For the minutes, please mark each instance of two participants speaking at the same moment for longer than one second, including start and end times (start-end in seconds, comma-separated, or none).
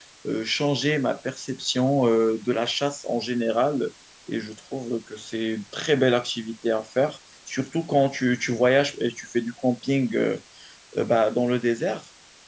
none